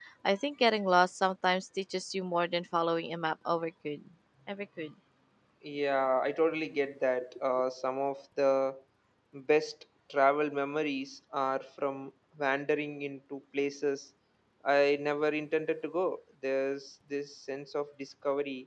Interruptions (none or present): none